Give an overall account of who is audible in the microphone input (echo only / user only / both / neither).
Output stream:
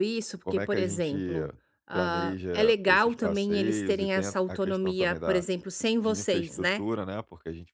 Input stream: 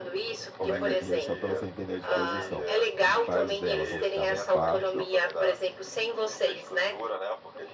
both